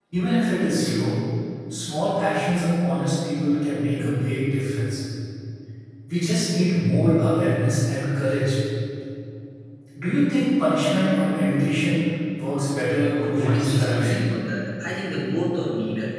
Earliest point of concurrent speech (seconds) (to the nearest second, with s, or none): 13 s